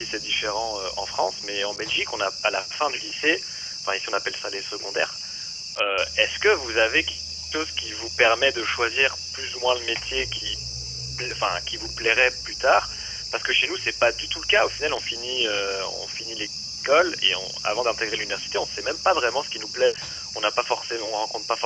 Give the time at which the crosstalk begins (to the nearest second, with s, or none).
none